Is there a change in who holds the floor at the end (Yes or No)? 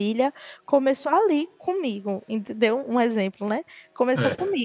No